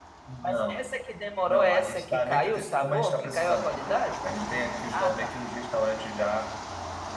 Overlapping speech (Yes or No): Yes